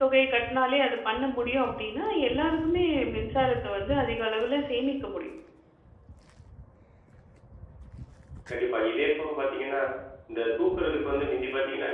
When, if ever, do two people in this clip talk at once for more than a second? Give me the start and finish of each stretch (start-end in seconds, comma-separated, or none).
none